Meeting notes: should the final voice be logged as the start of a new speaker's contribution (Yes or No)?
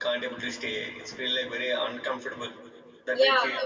Yes